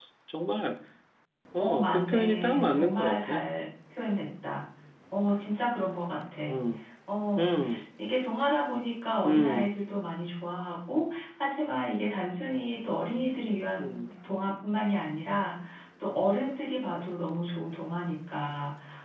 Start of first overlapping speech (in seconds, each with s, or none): 1.6 s